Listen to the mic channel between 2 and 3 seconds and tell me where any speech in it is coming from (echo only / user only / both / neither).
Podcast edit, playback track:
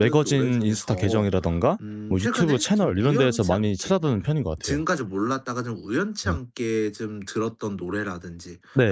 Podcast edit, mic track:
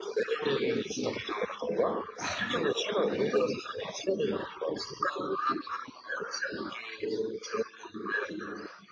both